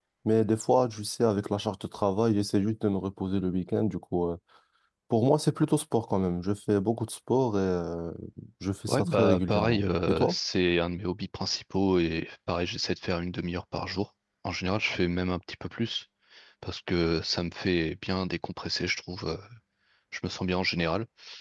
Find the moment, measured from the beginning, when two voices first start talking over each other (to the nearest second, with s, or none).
9 s